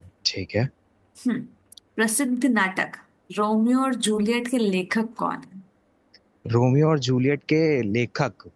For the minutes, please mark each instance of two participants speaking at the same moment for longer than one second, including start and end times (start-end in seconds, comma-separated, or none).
none